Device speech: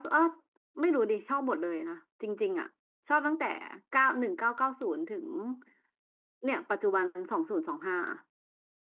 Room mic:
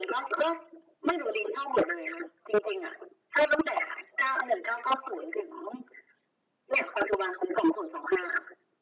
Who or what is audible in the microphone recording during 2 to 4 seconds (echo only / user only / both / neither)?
echo only